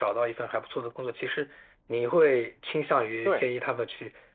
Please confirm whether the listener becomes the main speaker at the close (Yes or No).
No